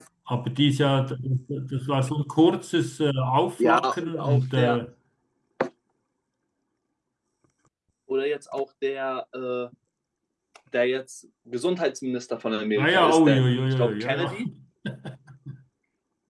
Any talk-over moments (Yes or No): Yes